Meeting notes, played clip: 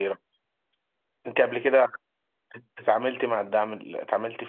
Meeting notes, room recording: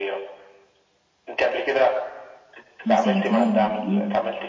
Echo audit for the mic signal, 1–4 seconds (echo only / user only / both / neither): both